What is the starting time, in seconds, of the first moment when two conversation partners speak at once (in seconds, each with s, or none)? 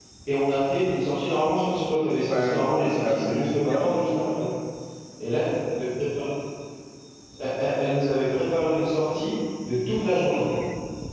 2.3 s